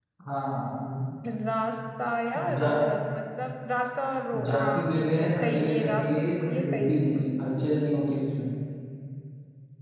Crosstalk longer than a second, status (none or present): present